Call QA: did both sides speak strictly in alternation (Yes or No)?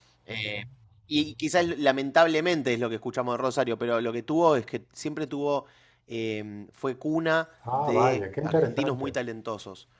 No